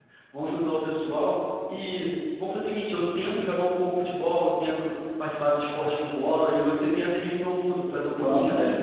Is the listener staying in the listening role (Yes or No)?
No